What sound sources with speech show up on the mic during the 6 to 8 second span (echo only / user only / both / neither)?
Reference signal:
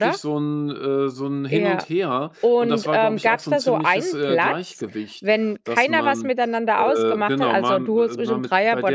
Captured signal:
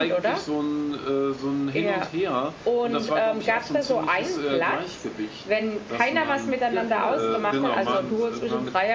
both